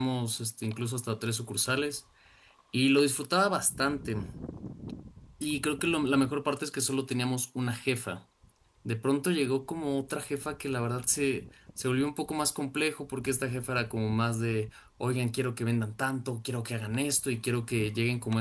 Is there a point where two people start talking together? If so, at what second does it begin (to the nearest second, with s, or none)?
none